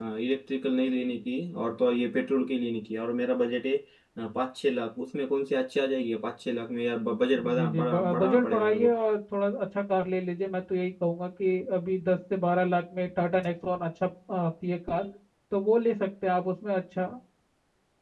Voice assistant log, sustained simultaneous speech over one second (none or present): present